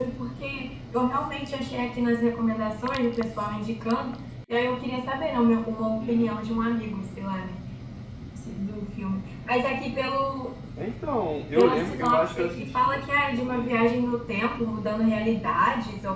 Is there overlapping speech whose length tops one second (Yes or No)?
Yes